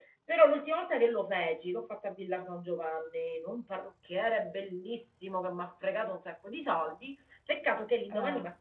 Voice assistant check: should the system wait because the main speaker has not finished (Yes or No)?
Yes